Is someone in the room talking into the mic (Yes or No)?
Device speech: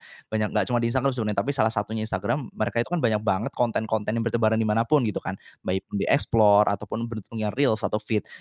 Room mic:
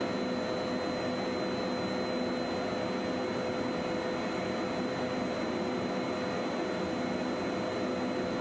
No